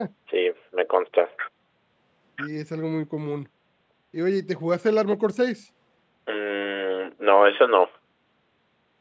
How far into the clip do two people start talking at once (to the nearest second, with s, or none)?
none